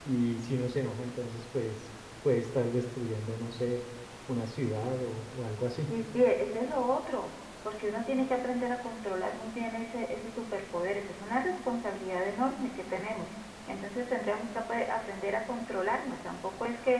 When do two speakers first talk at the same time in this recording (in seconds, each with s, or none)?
none